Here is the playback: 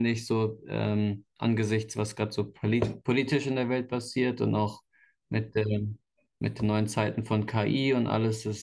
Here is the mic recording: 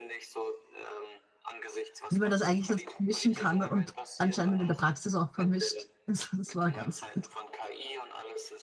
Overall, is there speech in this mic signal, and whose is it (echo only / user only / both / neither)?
both